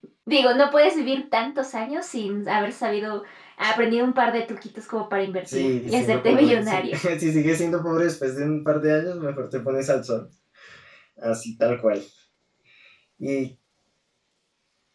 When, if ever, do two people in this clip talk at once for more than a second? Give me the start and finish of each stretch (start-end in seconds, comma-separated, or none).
5.5-7.0